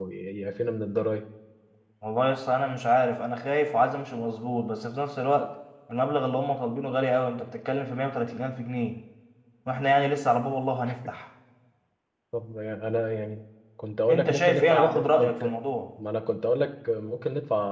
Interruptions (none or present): present